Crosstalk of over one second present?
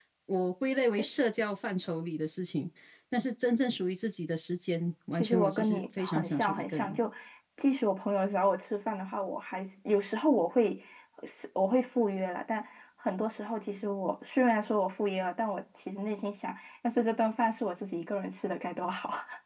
Yes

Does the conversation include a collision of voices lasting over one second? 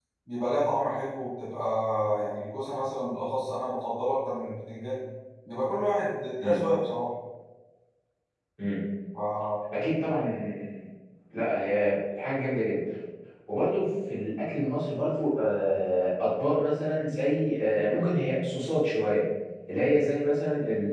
No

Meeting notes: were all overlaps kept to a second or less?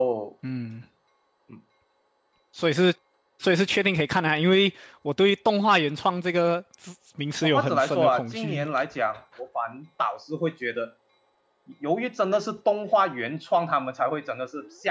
No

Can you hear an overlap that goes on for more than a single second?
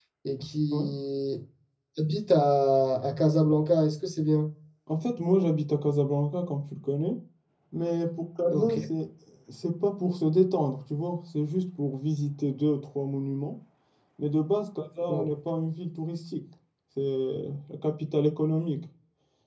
No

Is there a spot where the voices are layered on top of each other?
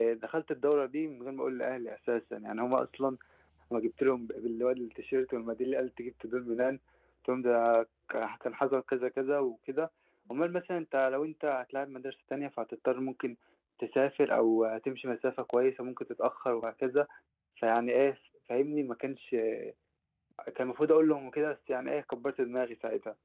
No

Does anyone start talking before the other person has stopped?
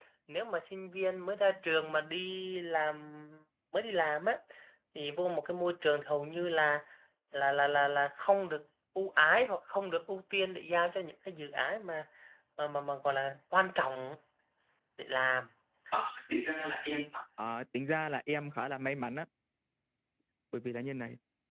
No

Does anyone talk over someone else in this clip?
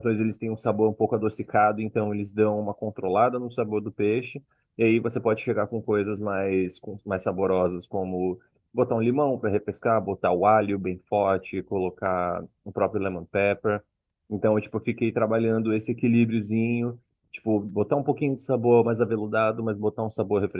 No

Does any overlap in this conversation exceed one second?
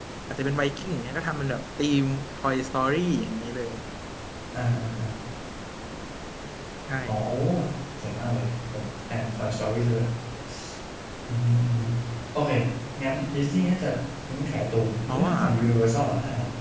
No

